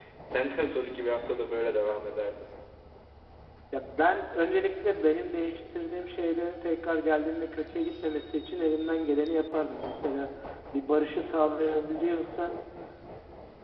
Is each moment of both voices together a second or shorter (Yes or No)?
Yes